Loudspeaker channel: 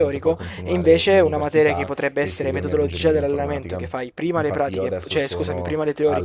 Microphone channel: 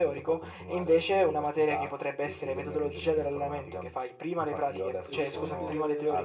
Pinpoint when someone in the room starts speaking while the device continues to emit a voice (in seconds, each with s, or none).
5.0 s